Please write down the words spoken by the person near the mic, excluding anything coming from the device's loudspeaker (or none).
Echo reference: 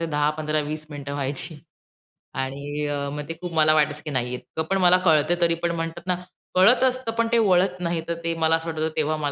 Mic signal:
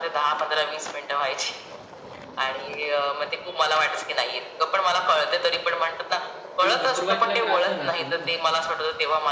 पण सुरुवातीला त्रास झाला असेल ना नक्कीच?